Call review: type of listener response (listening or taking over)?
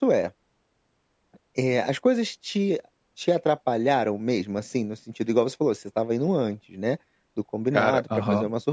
listening